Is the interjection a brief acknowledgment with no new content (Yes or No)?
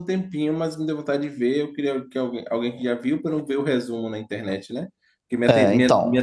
Yes